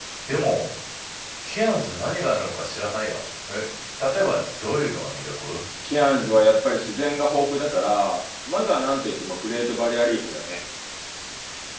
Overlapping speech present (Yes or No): No